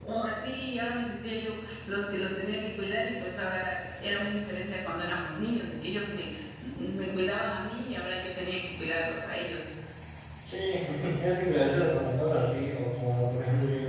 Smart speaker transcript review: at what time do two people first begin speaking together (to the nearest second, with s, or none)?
none